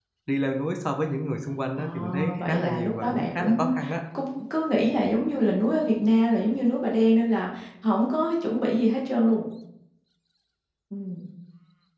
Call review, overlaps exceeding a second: present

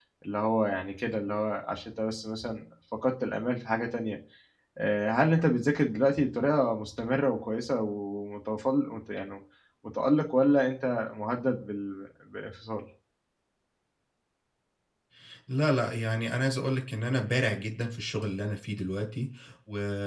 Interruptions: none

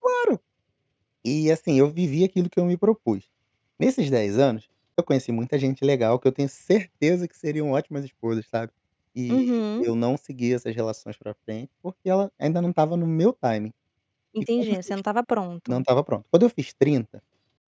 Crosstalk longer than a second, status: none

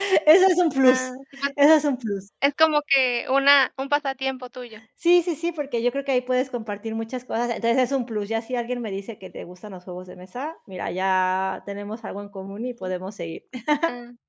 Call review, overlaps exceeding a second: none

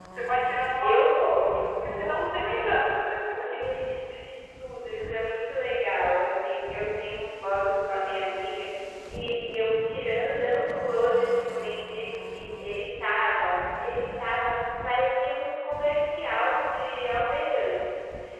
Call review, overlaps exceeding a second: present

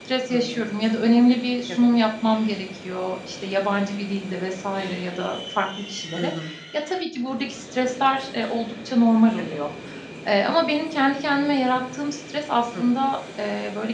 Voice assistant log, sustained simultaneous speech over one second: none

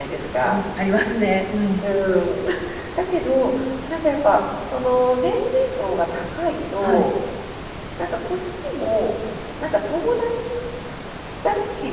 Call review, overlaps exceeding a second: none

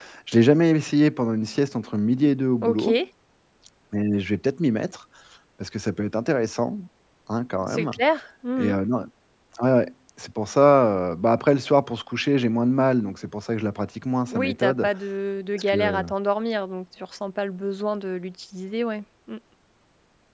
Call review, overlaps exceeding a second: none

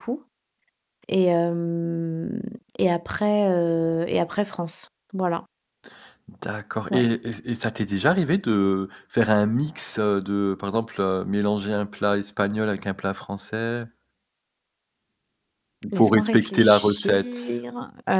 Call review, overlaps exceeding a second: present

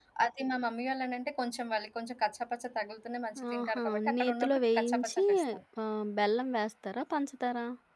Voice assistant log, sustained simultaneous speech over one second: present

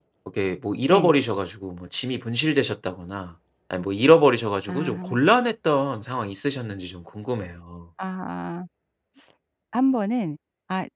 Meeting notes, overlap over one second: none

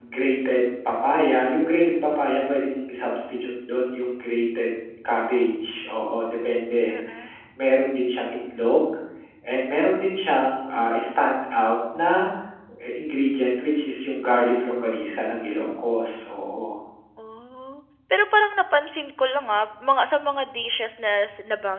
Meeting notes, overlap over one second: none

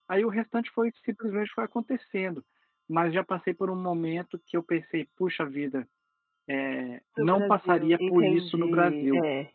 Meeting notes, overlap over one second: present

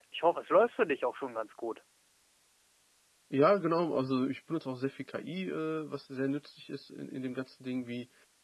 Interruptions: none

